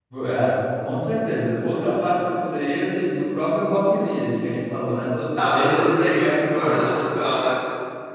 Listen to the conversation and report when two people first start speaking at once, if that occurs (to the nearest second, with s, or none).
5 s